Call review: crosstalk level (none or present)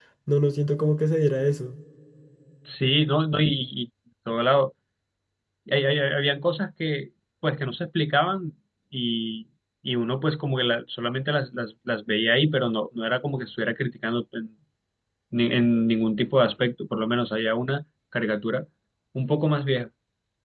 none